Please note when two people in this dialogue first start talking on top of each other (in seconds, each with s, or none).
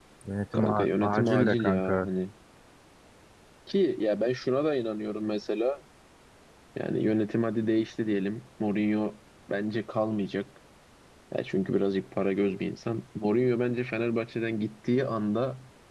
0.5 s